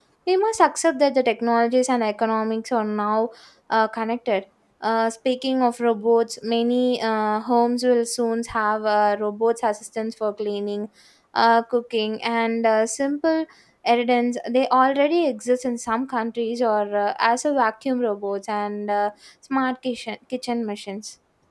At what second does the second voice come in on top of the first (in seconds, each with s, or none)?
none